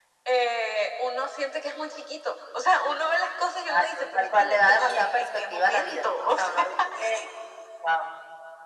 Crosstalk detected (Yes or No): Yes